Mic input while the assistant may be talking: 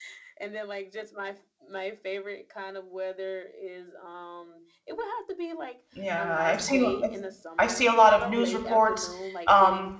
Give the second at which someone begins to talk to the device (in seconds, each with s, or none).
5.9 s